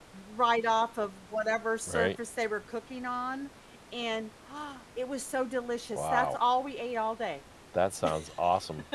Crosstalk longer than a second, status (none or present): none